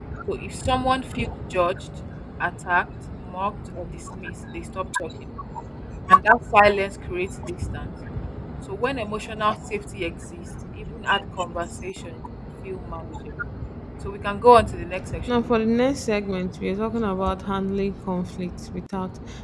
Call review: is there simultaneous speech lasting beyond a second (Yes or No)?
No